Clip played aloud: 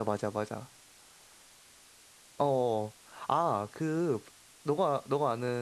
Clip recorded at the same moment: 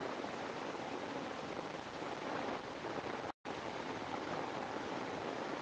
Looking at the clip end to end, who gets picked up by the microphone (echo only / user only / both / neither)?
neither